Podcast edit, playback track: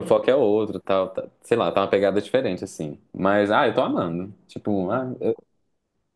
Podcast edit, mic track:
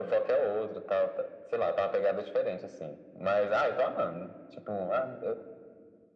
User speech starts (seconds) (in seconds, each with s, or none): none